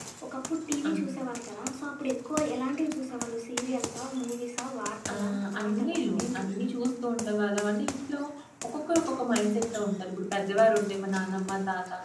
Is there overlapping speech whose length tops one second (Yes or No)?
Yes